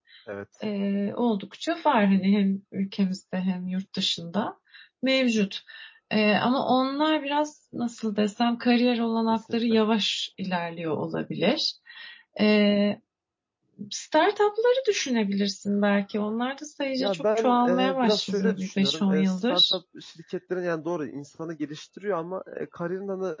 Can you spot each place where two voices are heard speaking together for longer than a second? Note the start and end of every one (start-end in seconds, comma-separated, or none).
17.0-19.8